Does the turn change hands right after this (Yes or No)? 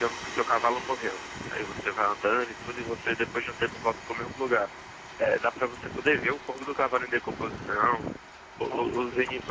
No